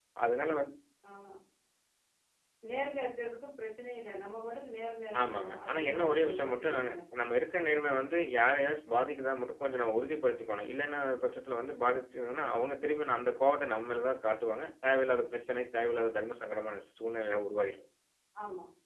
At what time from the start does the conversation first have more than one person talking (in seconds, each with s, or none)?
5.1 s